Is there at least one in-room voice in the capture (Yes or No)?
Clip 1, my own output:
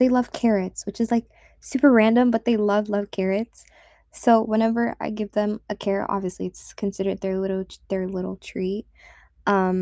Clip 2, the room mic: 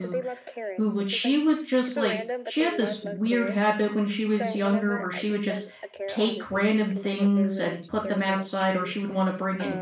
Yes